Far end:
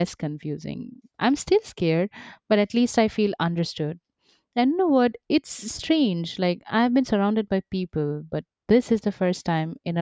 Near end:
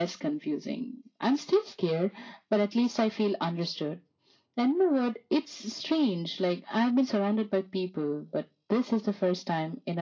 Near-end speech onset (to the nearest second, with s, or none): none